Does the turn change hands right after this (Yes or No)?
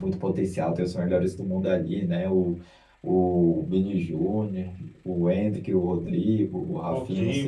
No